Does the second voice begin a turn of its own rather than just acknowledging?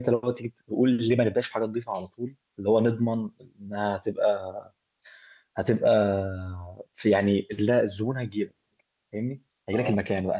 No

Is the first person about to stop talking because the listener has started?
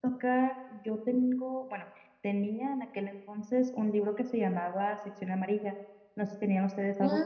Yes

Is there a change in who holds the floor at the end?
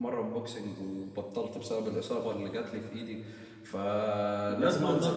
Yes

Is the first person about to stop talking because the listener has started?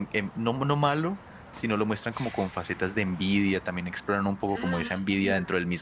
No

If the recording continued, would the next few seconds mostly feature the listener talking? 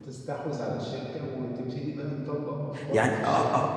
Yes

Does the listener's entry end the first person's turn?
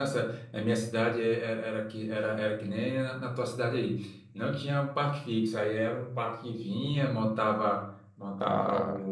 No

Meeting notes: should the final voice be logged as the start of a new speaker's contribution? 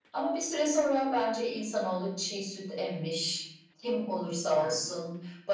No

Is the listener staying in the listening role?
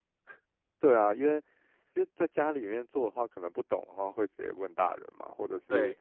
Yes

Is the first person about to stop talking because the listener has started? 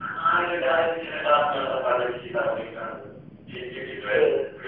Yes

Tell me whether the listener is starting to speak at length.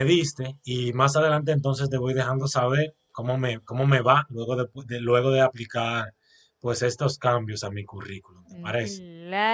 Yes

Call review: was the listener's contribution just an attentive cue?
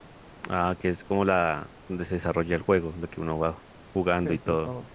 No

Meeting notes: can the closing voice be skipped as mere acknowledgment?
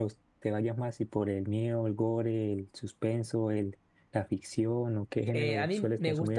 No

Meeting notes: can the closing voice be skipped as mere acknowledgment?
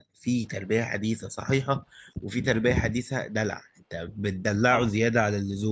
Yes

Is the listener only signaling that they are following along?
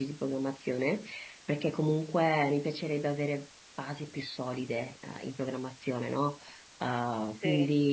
Yes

